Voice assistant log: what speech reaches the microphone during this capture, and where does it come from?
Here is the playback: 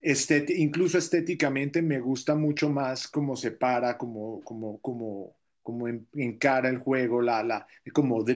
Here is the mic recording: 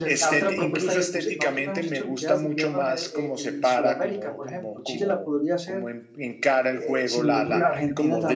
both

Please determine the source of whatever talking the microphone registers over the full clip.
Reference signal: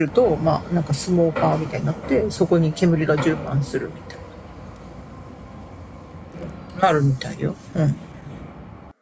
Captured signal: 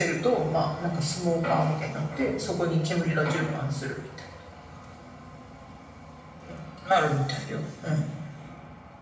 echo only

